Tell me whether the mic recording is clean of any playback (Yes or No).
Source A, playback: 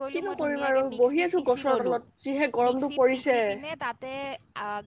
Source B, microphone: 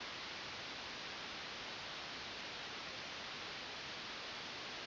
Yes